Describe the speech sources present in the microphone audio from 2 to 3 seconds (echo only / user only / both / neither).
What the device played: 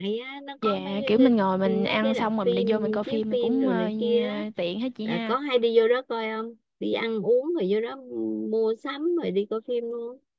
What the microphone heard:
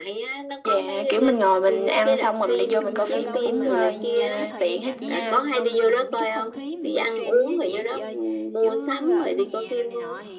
both